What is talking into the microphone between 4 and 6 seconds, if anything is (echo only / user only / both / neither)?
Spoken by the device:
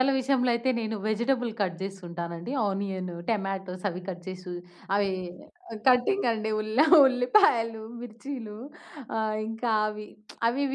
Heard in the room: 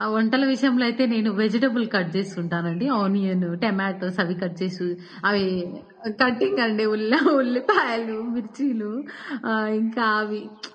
echo only